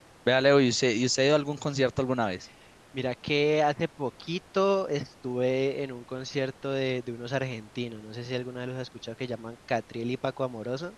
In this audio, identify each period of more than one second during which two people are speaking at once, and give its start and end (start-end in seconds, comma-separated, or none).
none